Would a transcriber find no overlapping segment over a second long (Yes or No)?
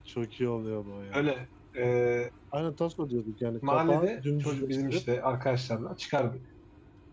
No